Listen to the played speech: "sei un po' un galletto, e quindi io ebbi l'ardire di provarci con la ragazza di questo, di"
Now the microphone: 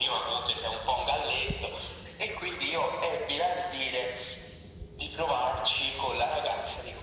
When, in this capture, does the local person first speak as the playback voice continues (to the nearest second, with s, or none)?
none